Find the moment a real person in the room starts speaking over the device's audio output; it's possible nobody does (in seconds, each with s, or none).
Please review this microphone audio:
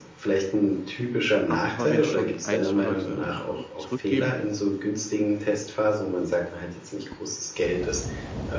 1.4 s